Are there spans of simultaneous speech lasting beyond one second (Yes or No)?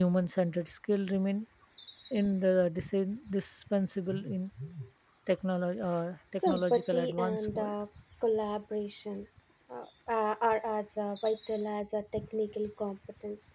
Yes